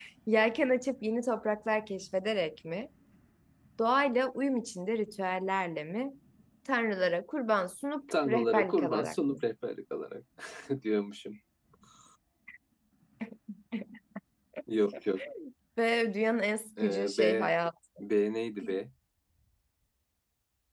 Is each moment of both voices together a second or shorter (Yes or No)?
No